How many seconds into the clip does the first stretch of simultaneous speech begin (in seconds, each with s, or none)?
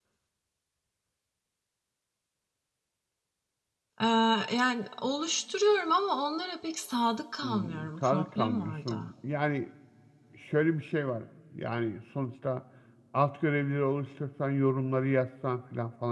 7.4 s